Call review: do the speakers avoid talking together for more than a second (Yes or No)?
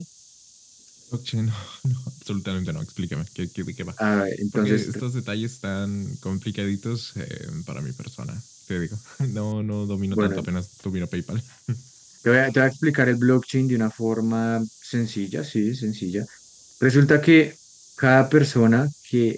Yes